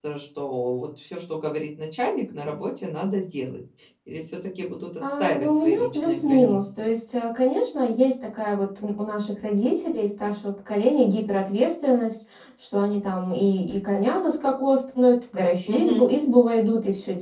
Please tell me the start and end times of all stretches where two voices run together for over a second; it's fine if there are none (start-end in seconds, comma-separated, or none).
5.2-6.6